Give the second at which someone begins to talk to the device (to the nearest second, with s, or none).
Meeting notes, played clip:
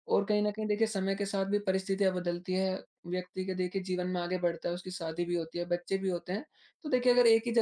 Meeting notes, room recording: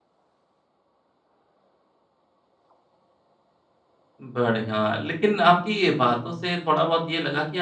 4 s